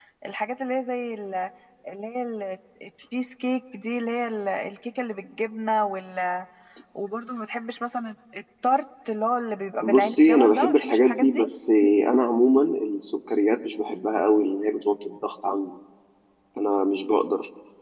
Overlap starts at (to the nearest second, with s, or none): 10 s